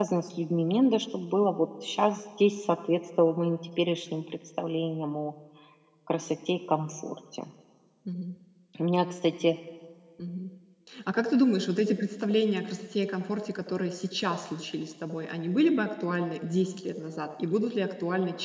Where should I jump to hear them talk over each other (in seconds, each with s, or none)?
none